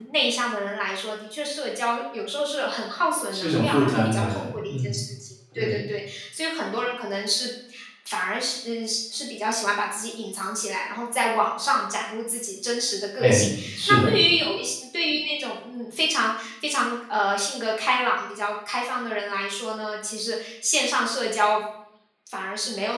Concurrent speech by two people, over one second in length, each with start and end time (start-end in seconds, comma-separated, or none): 3.3-5.0